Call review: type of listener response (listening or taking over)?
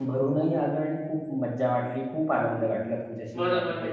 taking over